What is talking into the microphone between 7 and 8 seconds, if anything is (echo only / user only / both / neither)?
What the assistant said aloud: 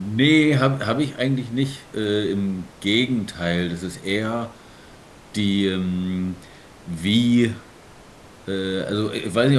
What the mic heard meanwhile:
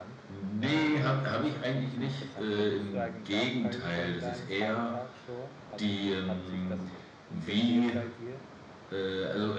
both